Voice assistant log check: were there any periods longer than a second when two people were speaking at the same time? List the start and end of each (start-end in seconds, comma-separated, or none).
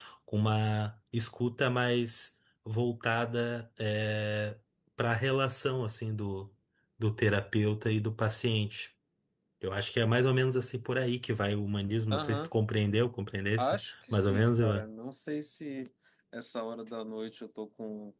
13.6-14.9